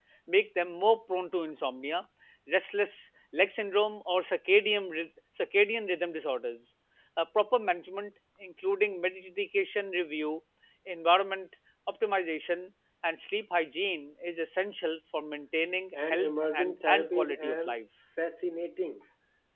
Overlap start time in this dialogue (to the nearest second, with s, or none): 16 s